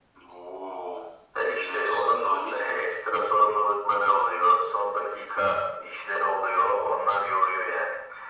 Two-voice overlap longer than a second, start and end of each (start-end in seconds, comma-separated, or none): 1.6-2.8